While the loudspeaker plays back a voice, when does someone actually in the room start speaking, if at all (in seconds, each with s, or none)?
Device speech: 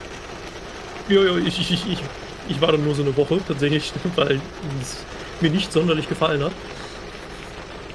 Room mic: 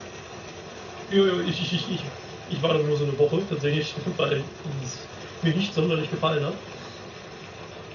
none